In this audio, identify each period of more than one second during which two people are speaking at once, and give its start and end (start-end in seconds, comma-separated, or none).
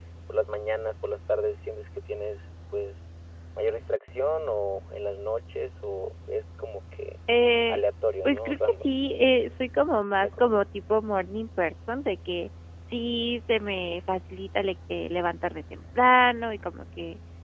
8.2-9.6